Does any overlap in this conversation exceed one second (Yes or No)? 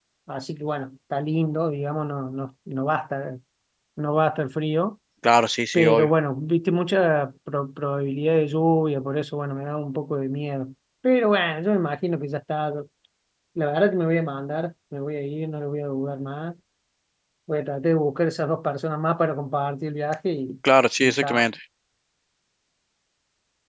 No